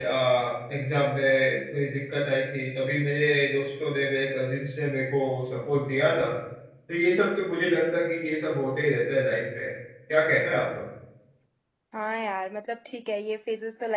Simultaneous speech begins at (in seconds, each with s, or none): none